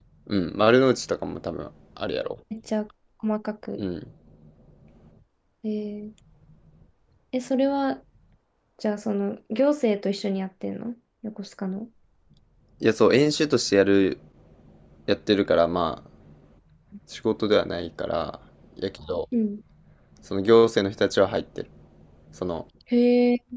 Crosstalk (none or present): none